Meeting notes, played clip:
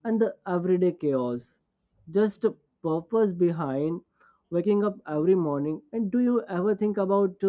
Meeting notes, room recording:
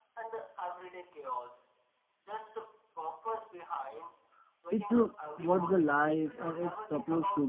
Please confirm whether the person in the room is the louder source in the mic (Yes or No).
Yes